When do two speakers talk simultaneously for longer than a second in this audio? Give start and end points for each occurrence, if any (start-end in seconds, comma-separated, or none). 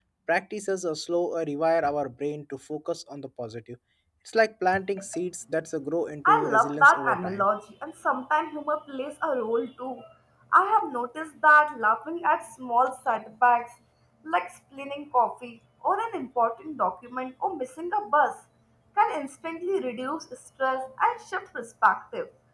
6.2-7.5